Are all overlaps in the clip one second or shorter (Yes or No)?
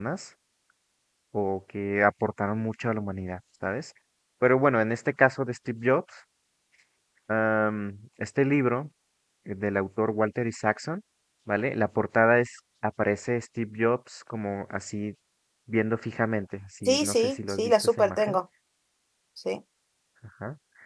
No